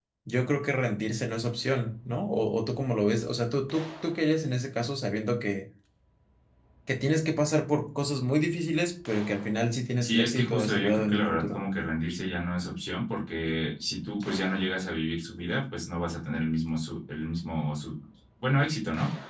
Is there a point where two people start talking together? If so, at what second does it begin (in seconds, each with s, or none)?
10.0 s